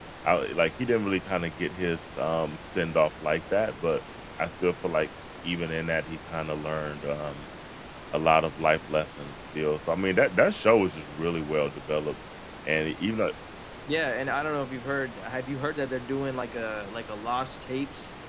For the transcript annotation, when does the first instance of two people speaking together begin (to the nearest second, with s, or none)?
none